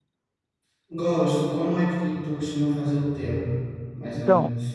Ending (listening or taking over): taking over